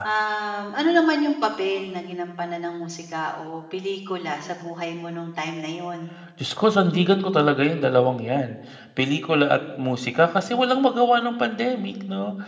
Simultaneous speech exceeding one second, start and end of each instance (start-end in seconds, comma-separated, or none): none